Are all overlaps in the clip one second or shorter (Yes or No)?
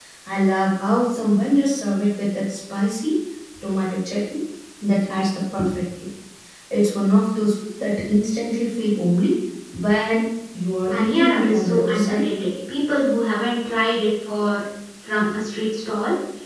No